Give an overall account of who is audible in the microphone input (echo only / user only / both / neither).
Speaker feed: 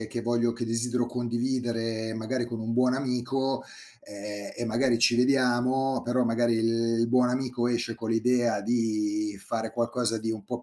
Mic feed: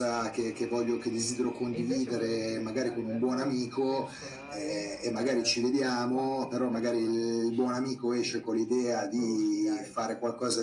both